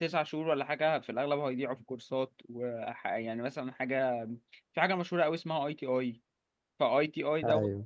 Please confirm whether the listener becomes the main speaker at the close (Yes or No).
No